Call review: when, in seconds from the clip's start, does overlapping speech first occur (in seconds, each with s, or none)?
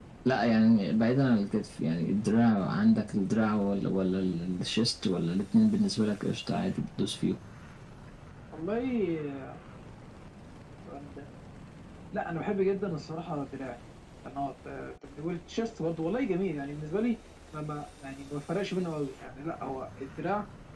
none